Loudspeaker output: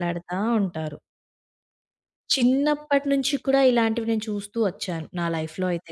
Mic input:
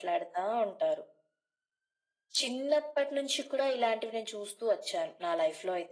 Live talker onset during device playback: none

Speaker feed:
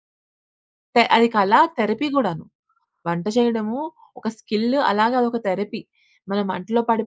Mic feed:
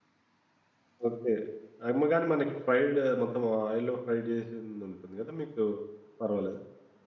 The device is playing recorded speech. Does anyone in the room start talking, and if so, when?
1.1 s

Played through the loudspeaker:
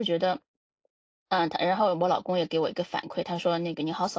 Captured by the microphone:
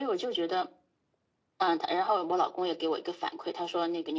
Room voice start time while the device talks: none

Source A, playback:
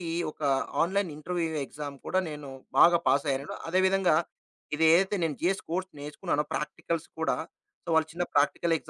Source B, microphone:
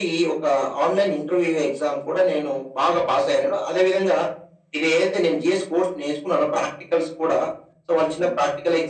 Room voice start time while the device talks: none

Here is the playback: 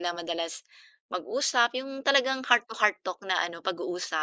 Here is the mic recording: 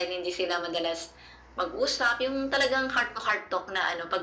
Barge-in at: none

